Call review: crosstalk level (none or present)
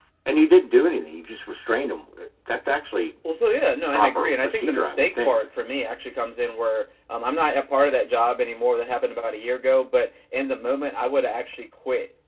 present